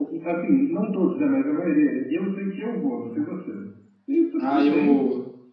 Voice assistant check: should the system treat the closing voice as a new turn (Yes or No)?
Yes